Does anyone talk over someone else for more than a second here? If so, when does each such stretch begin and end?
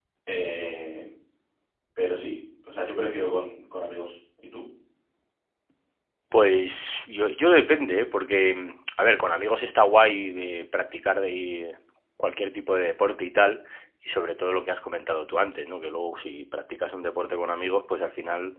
none

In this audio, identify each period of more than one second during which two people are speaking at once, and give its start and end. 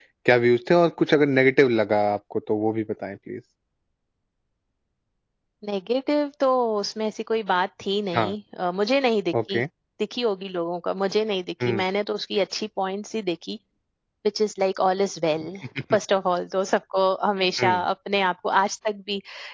none

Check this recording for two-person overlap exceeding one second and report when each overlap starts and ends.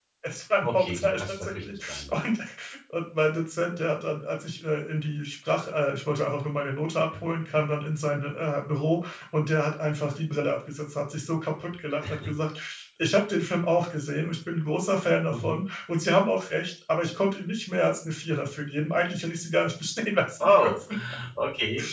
0.6-2.0

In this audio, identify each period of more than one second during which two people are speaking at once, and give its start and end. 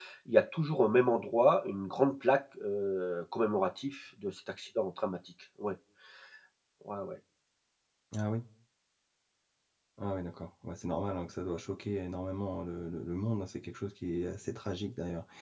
none

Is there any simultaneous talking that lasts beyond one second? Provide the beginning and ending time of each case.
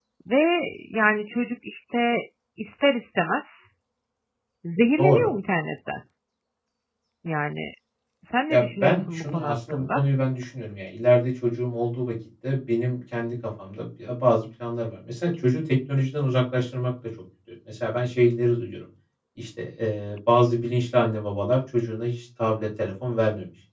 8.5-10.0

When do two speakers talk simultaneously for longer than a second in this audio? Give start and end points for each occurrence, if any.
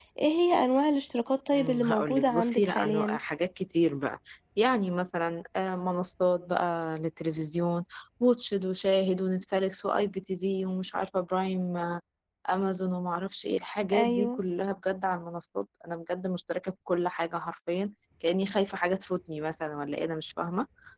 1.5-3.2

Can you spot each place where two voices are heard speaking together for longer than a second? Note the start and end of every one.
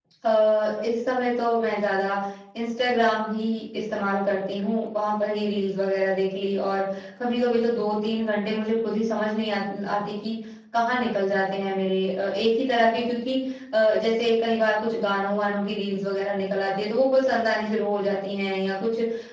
none

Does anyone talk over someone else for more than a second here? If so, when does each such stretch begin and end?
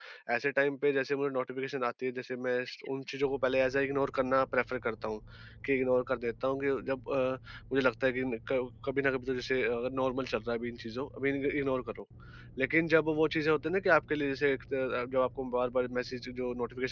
none

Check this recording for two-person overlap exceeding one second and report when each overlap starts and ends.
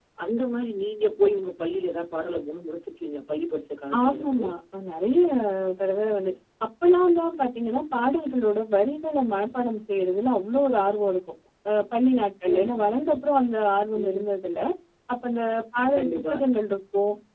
none

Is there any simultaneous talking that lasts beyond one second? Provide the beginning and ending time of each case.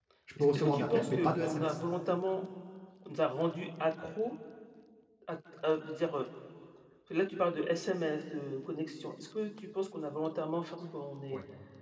0.6-1.8

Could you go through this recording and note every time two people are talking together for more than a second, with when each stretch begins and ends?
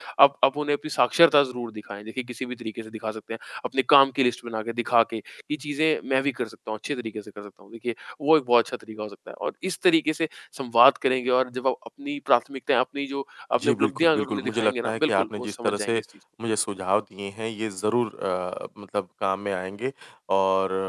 13.6-16.0

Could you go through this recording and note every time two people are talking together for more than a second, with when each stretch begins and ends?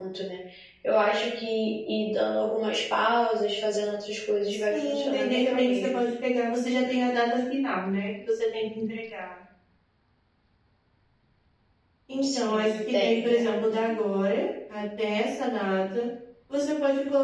4.7-6.0, 12.2-13.4

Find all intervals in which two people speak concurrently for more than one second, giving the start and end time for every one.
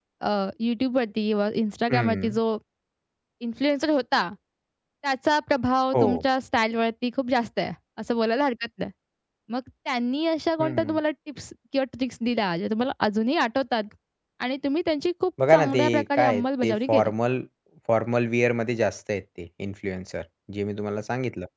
15.5-17.1

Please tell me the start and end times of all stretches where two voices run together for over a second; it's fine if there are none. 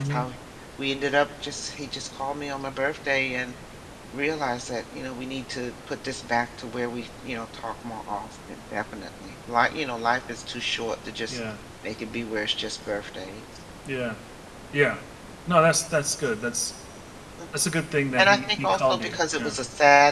18.2-19.6

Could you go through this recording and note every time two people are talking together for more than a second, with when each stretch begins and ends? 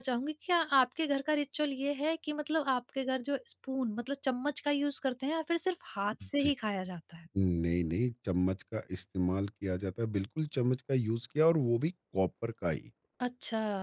none

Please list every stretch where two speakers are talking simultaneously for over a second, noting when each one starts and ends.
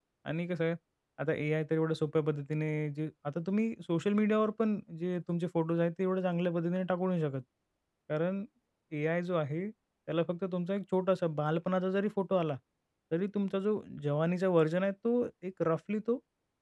none

